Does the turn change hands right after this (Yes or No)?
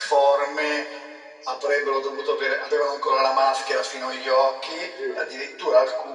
No